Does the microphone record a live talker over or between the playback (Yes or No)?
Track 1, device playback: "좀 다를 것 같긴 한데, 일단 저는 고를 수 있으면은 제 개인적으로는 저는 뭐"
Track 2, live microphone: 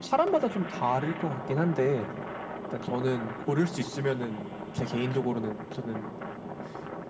No